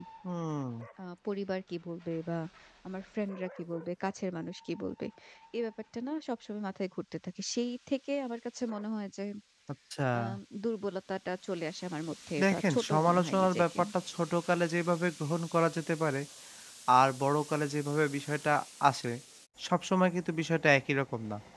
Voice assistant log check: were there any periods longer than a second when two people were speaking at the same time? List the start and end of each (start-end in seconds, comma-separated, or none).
12.4-13.8